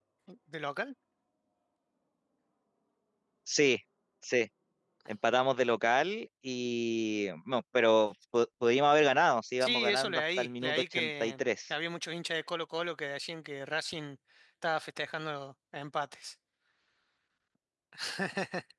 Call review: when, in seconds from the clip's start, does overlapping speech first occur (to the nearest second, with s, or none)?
10 s